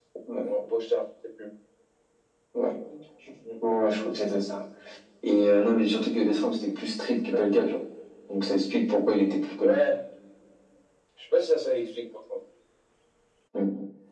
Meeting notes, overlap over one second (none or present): none